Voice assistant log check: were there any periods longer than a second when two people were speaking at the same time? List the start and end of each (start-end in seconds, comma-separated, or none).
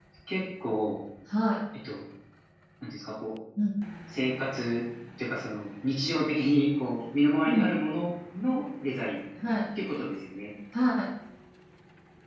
none